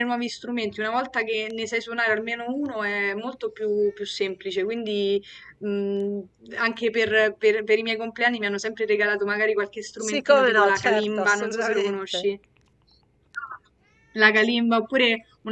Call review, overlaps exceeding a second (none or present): present